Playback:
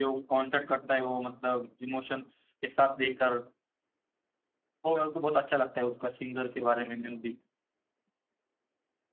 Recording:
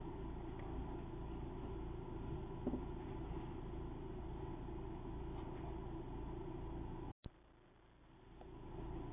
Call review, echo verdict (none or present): none